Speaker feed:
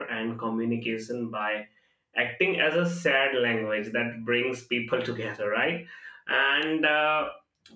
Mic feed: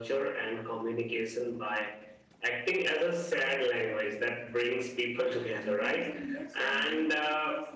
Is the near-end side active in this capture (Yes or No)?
Yes